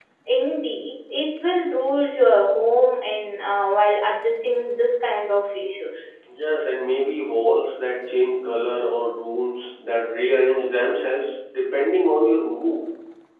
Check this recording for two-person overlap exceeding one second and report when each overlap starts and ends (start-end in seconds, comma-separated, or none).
none